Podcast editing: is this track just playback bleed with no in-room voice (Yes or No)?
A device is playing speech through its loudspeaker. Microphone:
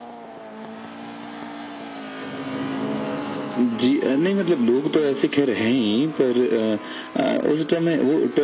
Yes